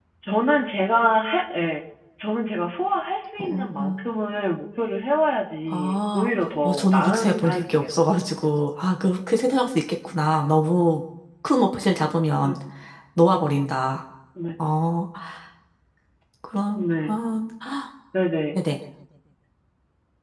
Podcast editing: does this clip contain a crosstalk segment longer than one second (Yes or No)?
Yes